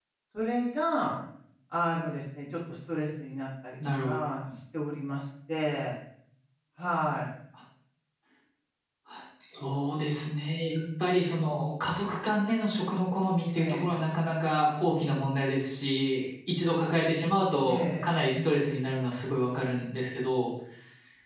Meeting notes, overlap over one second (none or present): none